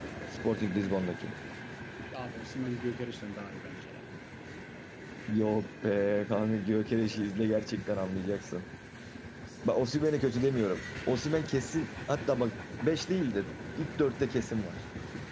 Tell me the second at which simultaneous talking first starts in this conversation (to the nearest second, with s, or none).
none